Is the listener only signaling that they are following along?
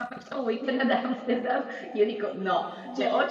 Yes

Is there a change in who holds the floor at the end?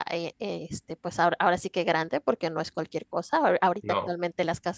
No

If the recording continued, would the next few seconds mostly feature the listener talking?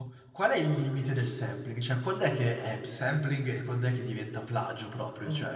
Yes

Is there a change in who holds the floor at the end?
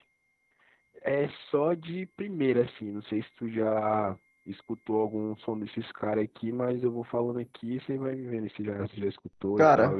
Yes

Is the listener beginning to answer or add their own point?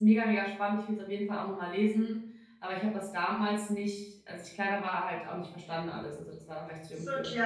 Yes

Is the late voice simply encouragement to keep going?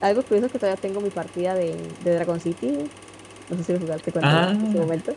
No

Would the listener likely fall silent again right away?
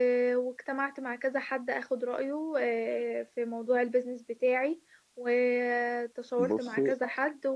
Yes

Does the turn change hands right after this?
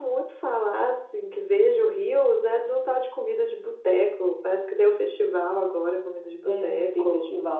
Yes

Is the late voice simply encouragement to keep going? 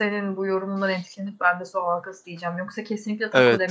Yes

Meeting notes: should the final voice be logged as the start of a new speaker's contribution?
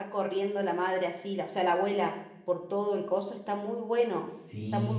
Yes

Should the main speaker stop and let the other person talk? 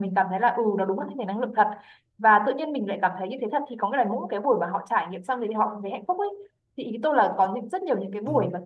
No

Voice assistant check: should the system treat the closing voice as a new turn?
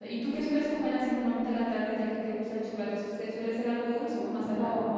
Yes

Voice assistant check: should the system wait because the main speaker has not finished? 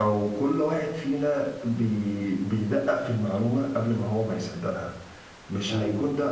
Yes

